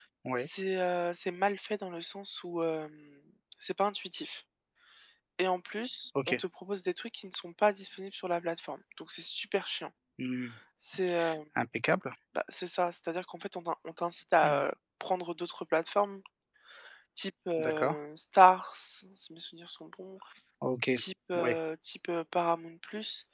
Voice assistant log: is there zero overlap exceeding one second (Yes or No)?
Yes